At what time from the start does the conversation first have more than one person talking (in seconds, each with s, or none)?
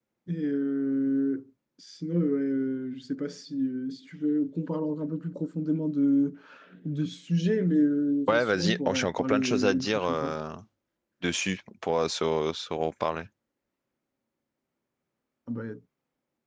8.3 s